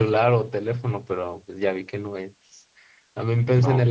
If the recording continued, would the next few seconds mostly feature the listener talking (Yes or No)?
No